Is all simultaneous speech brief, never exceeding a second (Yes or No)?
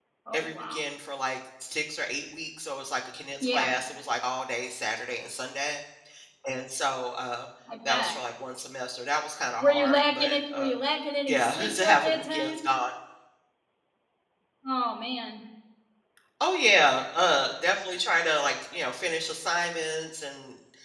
No